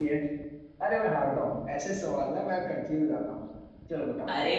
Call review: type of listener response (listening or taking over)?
taking over